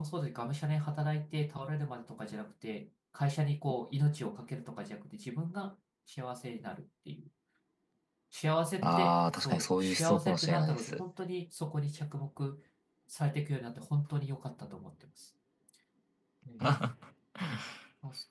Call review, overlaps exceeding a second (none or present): present